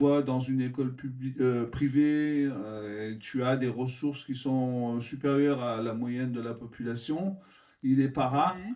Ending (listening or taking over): listening